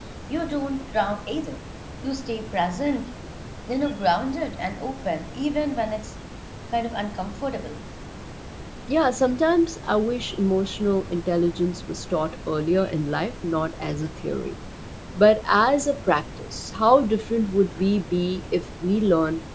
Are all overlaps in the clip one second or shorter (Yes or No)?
Yes